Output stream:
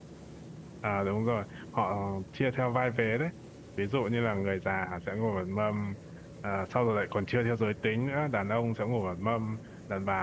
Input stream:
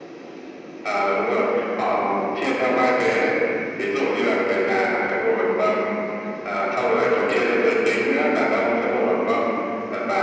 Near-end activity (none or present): none